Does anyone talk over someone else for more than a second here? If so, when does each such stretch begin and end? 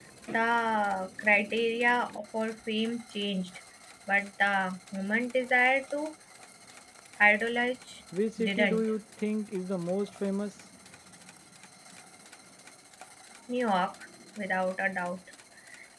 none

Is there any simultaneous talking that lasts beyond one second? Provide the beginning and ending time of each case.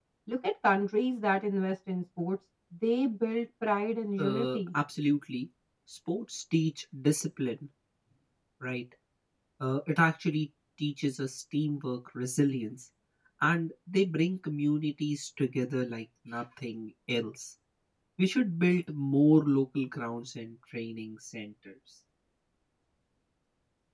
none

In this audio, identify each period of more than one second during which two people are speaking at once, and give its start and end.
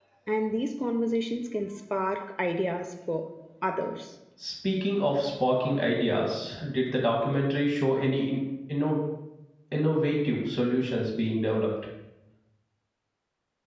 none

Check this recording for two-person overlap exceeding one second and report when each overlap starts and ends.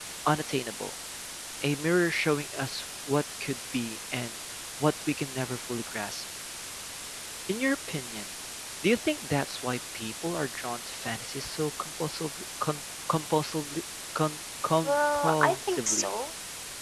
14.8-16.1

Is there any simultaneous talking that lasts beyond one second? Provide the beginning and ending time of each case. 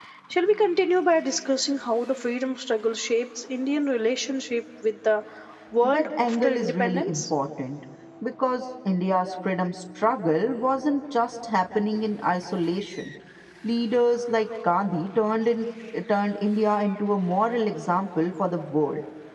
5.8-7.2

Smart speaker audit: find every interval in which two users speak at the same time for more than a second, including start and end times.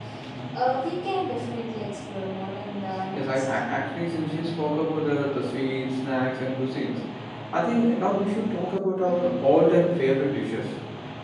none

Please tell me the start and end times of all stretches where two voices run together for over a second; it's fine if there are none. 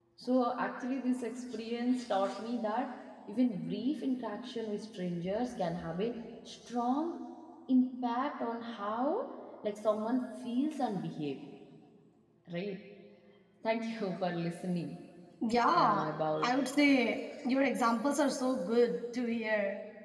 none

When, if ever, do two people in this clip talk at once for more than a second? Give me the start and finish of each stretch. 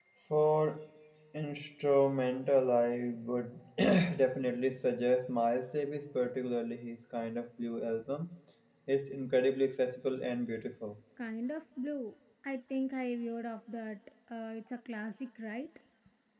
none

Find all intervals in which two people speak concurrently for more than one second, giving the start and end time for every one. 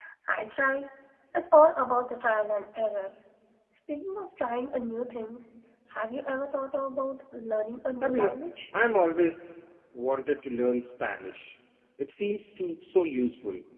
none

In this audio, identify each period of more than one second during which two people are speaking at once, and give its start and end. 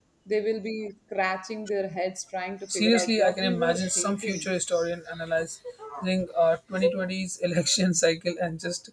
2.7-4.5

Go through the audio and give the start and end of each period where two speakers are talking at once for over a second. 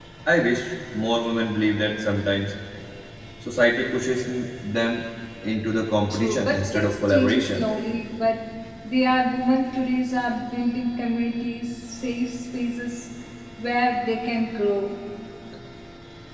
6.1-7.7

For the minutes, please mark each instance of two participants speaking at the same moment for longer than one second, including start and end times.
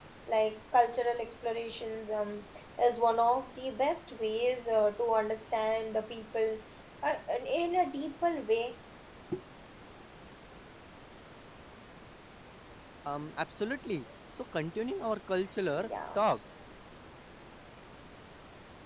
none

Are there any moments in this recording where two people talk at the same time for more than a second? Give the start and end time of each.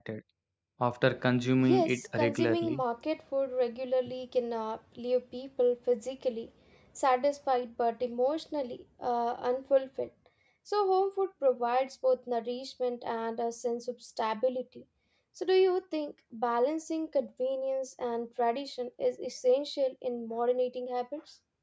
1.6-2.8

